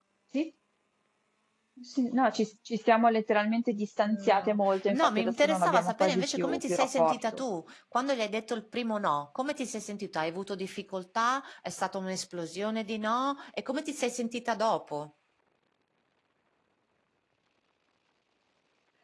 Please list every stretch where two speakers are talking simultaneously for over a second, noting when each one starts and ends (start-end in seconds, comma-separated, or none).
4.0-7.2